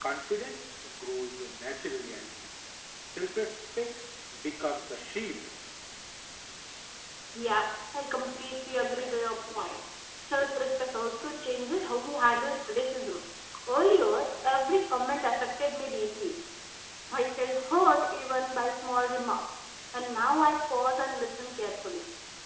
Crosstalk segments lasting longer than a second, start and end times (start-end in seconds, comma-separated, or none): none